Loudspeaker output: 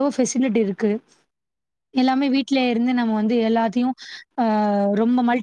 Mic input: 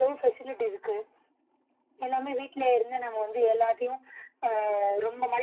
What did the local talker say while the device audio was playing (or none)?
none